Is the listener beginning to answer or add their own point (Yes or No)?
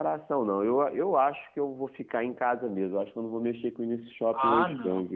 Yes